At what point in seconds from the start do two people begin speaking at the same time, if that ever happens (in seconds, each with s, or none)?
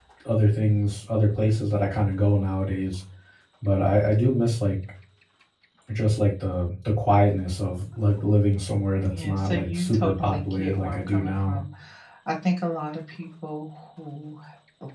9.0 s